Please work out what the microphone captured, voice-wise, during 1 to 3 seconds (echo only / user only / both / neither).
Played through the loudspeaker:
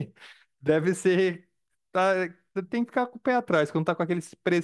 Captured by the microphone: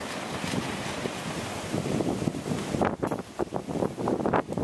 neither